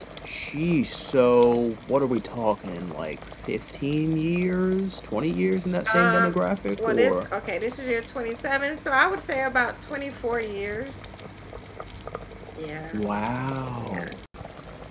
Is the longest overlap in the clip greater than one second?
No

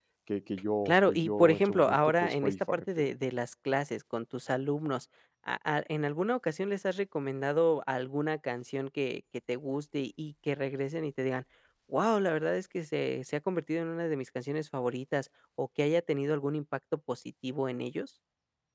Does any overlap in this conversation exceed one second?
Yes, from 0.8 s

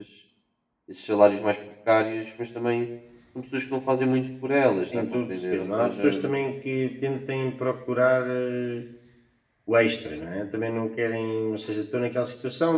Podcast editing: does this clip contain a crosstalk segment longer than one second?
Yes, from 4.9 s

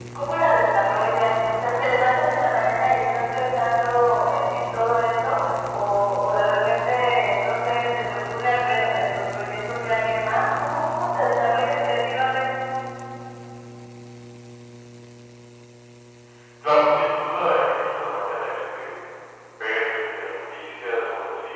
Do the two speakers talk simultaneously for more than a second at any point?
No

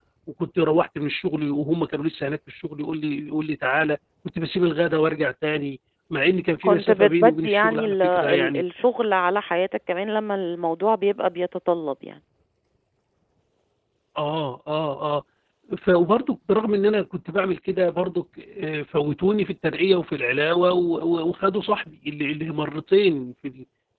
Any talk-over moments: Yes, from 6.6 s

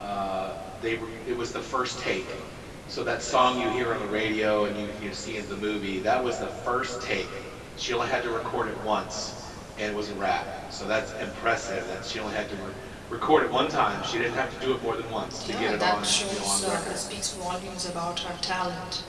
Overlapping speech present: Yes, from 15.3 s

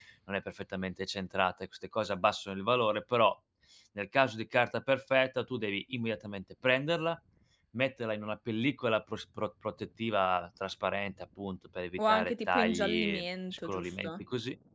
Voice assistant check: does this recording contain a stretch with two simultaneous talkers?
Yes, from 12.0 s

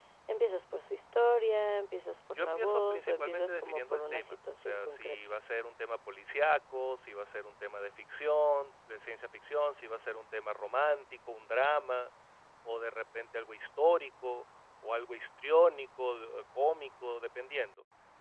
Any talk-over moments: Yes, from 2.4 s

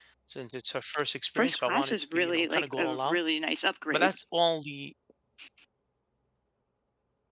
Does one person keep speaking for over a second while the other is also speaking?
Yes, from 1.4 s

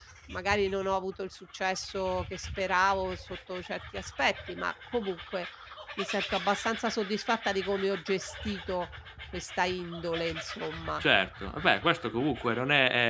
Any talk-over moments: No

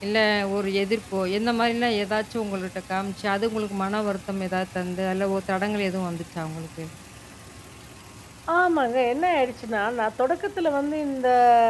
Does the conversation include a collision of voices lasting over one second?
No

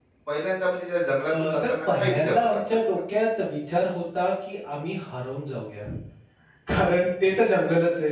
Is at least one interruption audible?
Yes, from 1.3 s

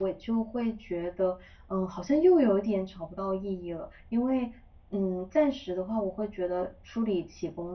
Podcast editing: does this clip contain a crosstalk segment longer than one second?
No

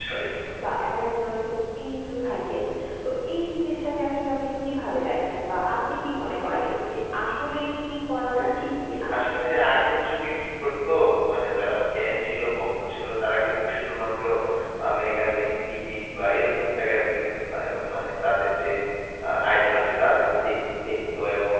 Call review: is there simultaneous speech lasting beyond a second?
No

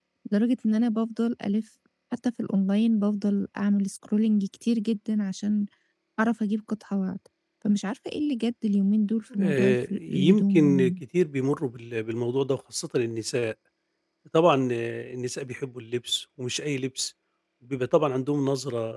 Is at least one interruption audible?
Yes, from 9.3 s

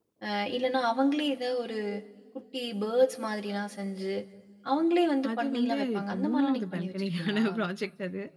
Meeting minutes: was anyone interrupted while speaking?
Yes, from 5.4 s

